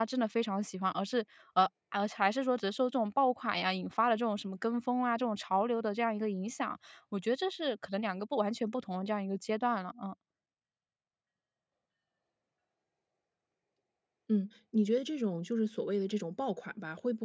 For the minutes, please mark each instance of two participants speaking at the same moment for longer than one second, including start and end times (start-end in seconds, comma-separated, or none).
none